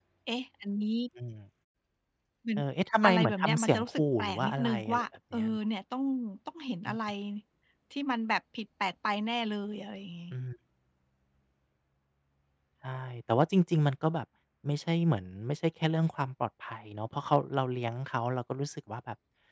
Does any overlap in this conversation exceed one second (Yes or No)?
Yes